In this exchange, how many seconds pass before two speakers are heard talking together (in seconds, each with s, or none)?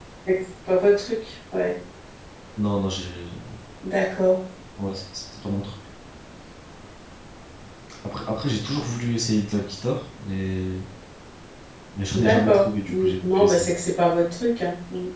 12.1 s